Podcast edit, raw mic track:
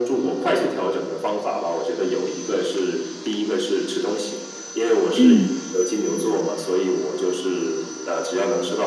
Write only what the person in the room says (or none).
嗯。